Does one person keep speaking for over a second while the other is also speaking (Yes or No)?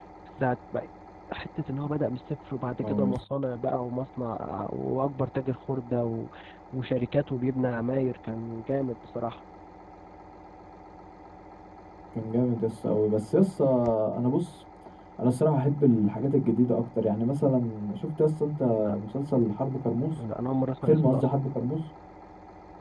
No